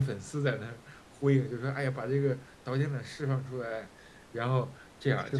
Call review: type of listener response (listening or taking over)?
listening